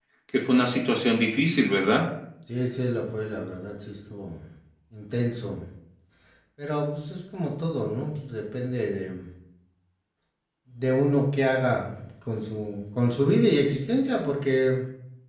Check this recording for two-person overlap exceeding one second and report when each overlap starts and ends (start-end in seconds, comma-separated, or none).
none